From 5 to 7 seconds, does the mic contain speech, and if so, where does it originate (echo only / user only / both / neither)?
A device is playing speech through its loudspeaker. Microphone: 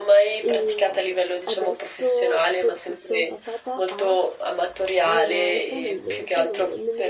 both